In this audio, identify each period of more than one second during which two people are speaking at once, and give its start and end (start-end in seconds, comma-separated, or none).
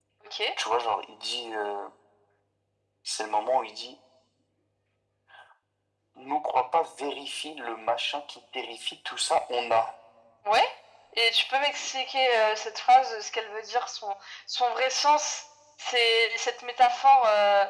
none